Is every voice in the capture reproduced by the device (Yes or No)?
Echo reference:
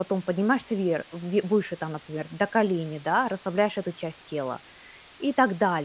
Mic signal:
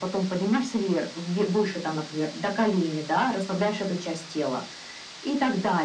Yes